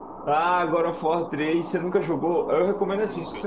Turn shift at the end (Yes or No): No